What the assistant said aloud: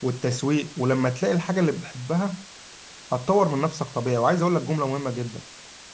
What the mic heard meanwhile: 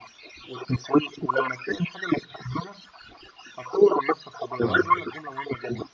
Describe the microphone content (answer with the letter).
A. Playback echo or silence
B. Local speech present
B